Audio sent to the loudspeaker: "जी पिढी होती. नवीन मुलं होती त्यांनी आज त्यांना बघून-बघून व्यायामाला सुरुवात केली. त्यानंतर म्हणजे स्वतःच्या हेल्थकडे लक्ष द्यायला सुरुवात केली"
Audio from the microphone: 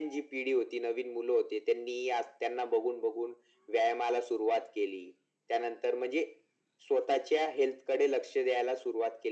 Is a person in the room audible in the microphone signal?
No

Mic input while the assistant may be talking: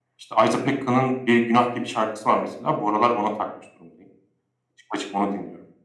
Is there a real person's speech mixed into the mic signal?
No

